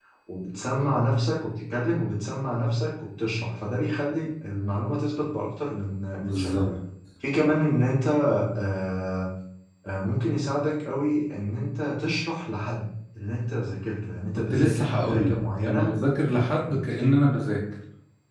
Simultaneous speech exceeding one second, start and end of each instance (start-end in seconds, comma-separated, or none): 14.5-15.9